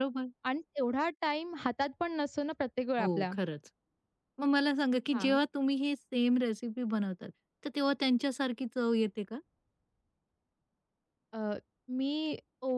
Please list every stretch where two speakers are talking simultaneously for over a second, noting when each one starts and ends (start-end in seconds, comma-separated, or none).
none